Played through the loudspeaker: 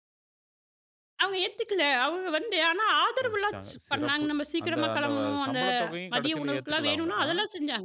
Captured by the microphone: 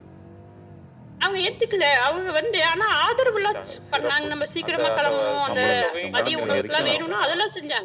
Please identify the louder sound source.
echo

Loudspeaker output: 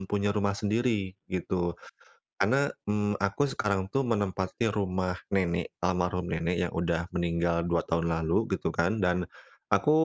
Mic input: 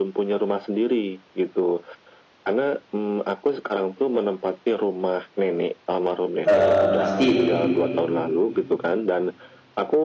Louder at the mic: user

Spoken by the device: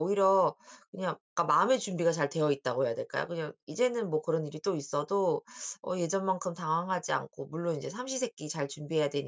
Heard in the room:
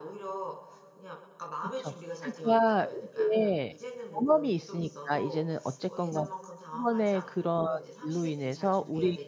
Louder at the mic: user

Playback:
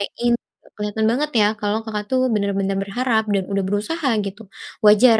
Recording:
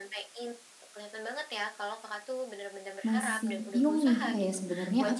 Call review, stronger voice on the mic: user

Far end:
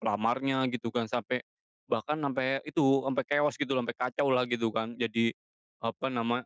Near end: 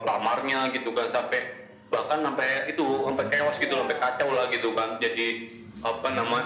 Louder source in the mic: echo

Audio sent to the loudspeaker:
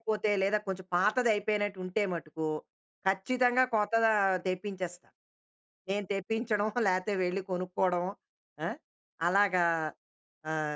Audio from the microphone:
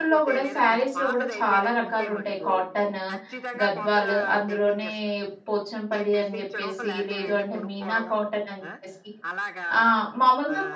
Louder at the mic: user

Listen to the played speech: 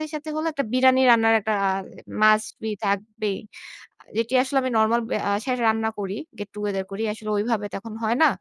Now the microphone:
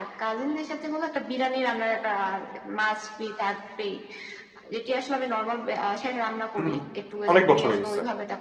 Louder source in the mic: user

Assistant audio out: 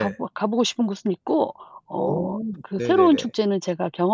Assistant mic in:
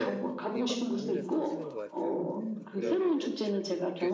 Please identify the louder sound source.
echo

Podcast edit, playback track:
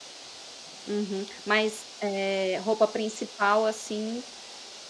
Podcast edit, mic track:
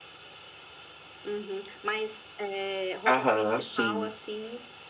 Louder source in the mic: user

